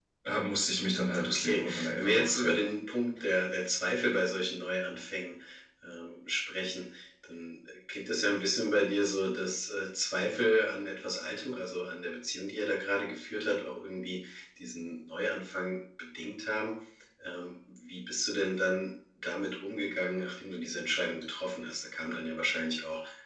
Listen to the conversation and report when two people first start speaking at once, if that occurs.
1.2 s

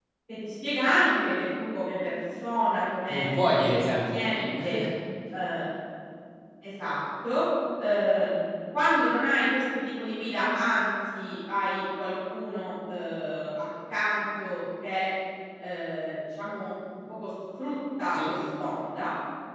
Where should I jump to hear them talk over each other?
3.1 s

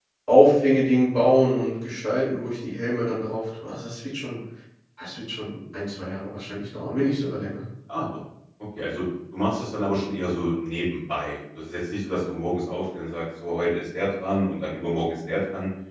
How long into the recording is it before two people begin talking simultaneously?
none

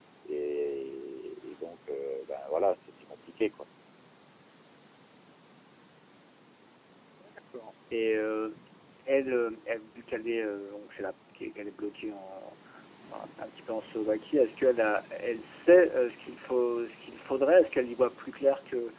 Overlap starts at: none

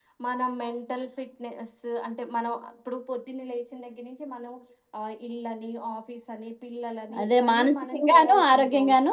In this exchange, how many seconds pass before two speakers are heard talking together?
7.1 s

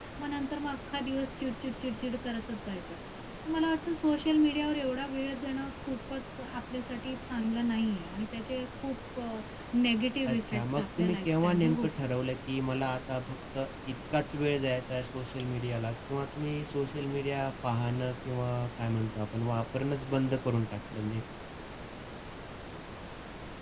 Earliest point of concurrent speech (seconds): 10.3 s

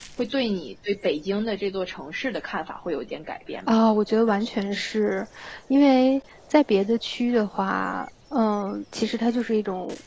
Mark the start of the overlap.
none

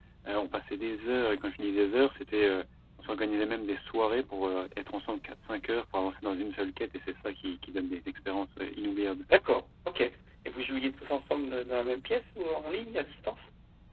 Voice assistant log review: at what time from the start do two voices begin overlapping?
none

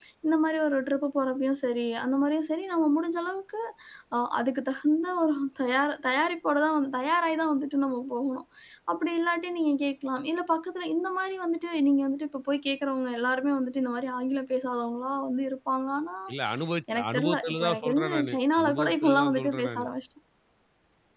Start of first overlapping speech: 16.9 s

